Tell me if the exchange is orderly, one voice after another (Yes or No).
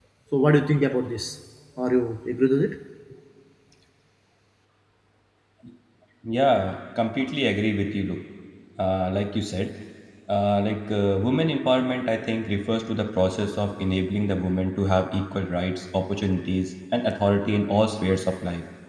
Yes